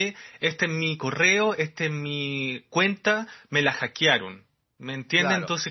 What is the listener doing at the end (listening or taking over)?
taking over